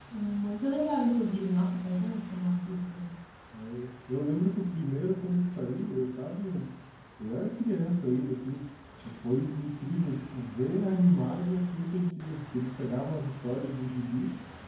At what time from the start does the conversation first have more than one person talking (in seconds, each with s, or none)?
none